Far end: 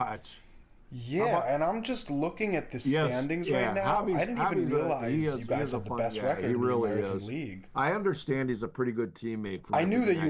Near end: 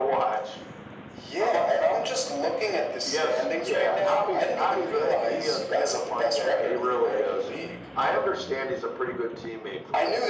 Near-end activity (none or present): none